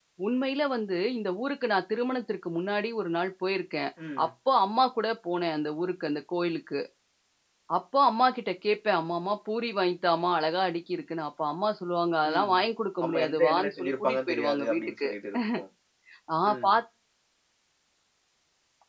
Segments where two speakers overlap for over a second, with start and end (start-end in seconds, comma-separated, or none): 13.0-15.1